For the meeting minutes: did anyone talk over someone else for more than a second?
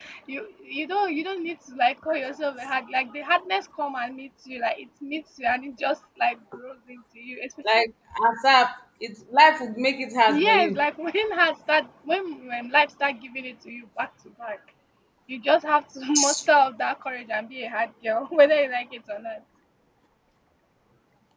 No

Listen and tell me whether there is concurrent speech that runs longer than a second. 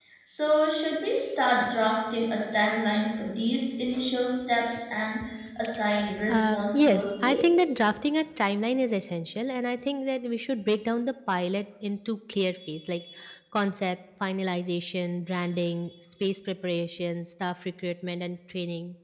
Yes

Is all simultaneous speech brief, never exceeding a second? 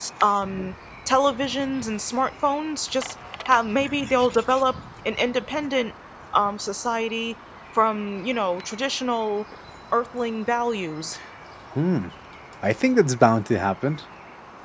Yes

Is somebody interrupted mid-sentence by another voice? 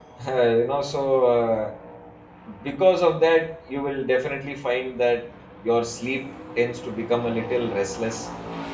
No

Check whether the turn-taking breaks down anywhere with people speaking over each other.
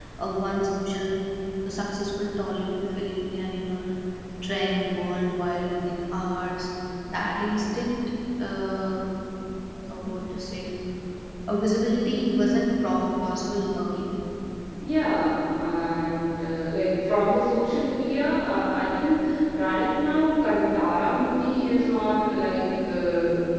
No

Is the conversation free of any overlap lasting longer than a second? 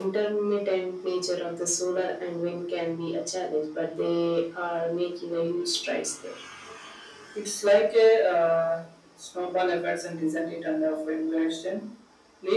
Yes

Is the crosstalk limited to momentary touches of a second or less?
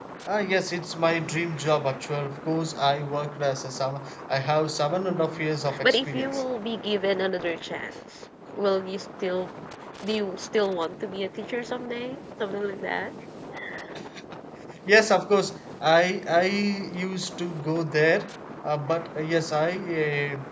No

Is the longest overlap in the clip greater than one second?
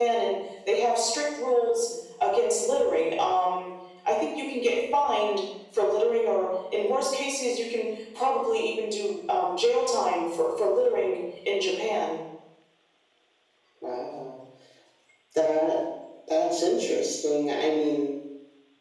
No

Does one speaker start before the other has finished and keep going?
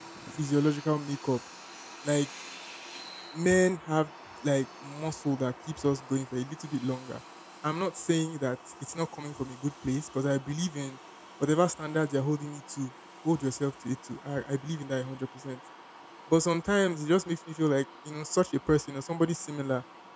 No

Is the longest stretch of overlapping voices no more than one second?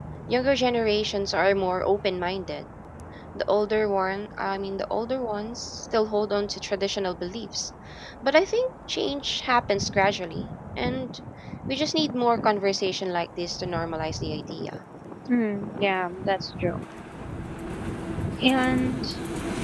Yes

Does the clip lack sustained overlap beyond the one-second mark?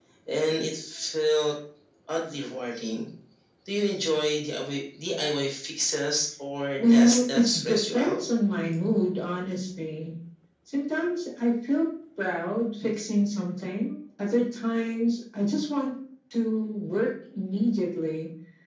No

